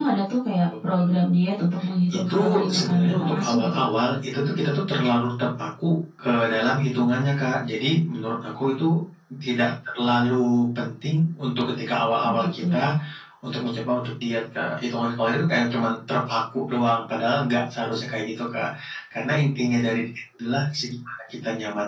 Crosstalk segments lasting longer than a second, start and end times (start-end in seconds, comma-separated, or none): 2.1-3.9